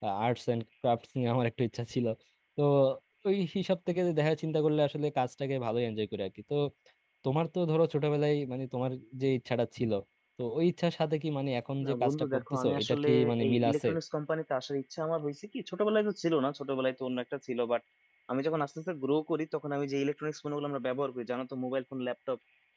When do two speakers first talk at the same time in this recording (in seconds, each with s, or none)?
11.8 s